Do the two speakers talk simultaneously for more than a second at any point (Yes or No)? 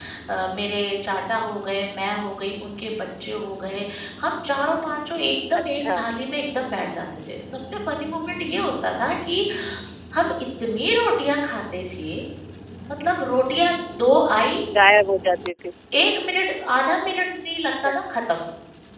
No